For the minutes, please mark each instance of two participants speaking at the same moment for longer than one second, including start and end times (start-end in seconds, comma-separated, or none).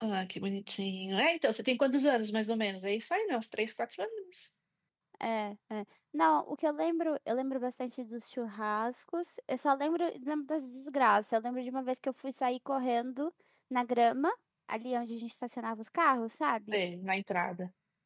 none